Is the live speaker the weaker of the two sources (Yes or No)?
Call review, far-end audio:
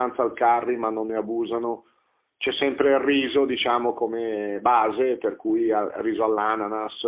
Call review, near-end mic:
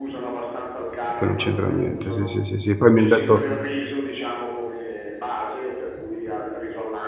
No